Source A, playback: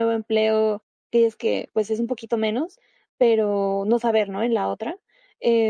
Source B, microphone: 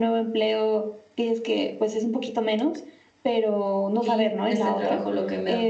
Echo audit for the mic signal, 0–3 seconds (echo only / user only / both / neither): echo only